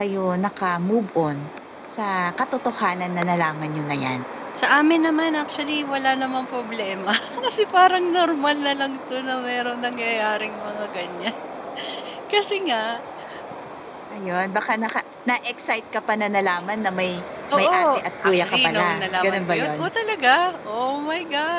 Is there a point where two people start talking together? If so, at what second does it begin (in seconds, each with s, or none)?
17.6 s